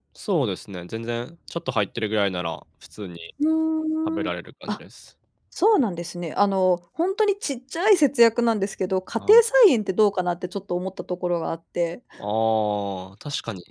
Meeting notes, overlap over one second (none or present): none